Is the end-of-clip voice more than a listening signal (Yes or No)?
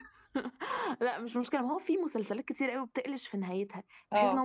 No